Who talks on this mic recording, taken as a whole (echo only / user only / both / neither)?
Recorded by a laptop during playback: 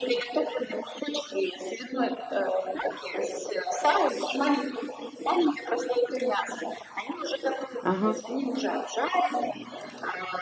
both